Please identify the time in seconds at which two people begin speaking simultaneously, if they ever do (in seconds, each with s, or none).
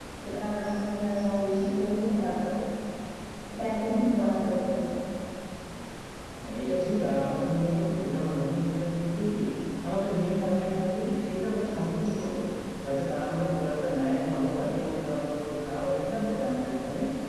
none